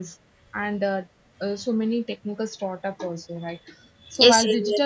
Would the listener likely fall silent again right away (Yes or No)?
No